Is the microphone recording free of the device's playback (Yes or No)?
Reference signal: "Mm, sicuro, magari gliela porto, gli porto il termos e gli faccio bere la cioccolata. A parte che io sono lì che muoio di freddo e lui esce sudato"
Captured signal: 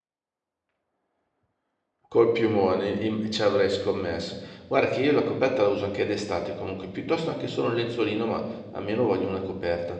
Yes